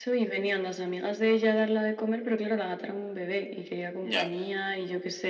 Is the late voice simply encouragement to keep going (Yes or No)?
Yes